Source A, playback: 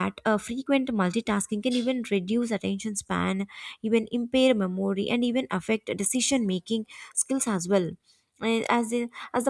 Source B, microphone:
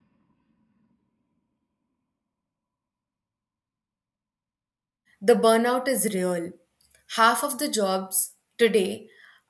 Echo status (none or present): none